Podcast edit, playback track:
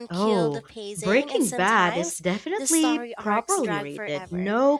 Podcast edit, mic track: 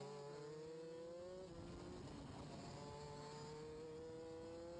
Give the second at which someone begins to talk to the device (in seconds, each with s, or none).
none